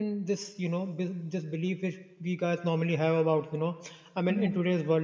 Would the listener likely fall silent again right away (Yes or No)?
Yes